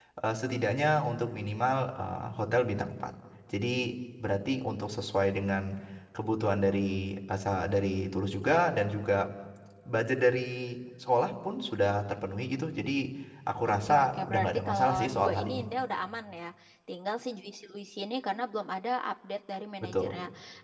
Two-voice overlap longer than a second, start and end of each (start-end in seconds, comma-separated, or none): 13.7-15.7